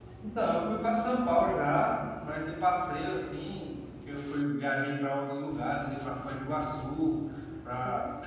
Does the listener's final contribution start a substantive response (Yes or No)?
No